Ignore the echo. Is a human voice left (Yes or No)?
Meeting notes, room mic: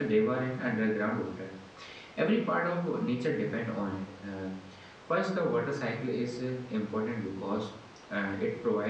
Yes